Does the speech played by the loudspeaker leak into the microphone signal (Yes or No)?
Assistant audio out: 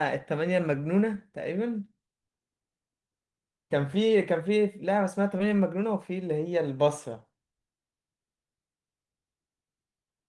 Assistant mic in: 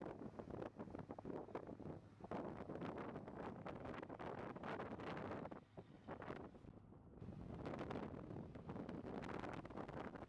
No